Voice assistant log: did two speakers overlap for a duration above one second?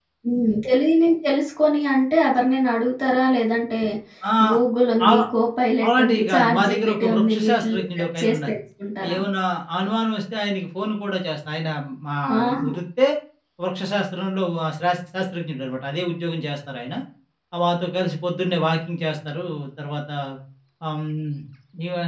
Yes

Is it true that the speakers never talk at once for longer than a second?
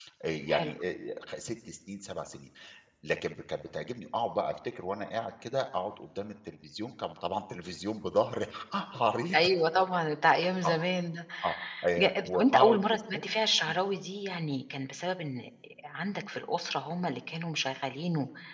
No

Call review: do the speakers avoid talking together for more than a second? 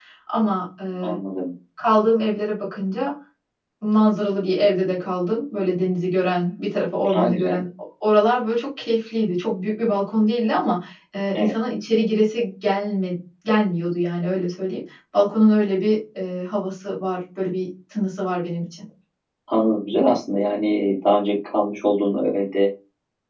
Yes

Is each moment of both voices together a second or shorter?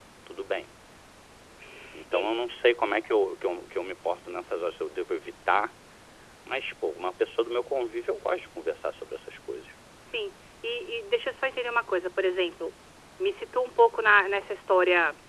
Yes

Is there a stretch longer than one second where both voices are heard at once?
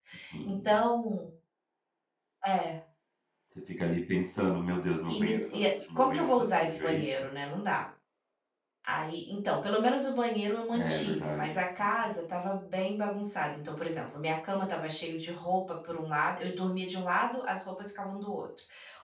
Yes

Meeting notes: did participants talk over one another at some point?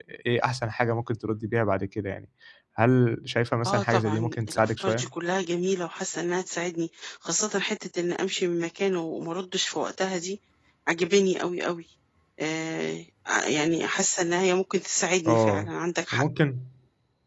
Yes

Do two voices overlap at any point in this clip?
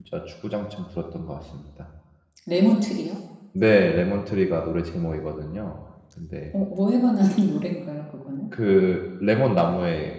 No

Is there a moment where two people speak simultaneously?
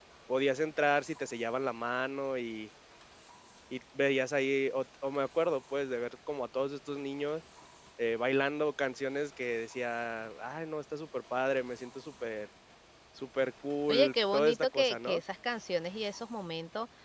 Yes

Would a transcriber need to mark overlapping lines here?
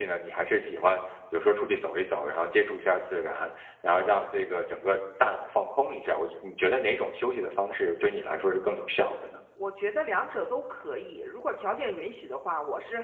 No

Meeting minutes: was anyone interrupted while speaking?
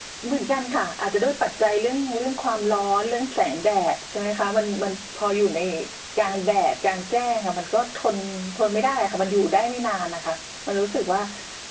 No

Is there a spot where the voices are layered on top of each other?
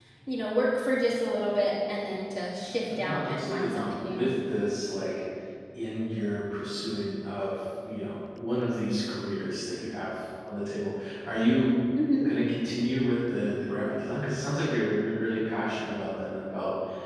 Yes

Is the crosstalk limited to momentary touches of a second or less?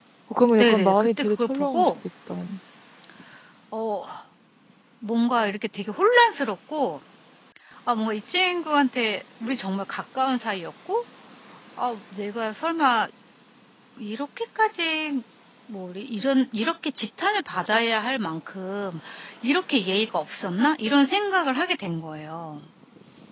No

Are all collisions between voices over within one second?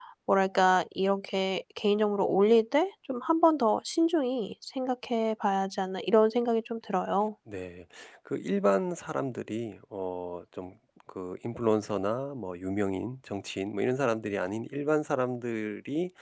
Yes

